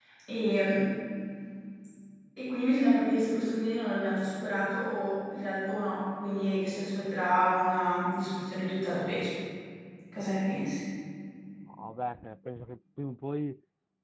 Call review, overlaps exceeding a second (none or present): none